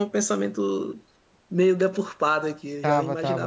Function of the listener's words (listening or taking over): taking over